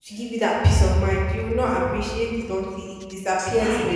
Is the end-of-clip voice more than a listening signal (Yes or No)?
Yes